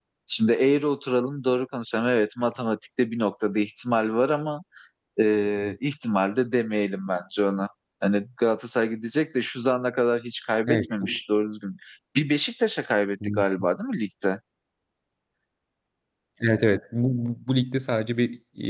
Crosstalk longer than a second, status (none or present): none